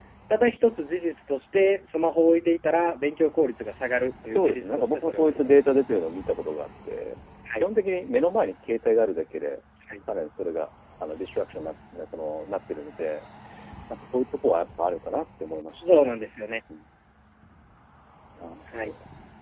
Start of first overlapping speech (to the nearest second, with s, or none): 4 s